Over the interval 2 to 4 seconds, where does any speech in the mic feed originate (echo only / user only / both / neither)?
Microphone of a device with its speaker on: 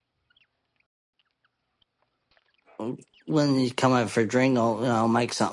user only